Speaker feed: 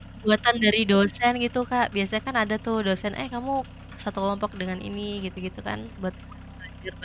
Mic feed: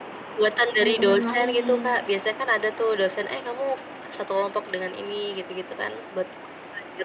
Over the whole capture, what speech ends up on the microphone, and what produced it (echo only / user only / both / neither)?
both